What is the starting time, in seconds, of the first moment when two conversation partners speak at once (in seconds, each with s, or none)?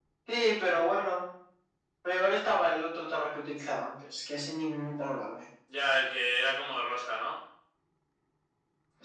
none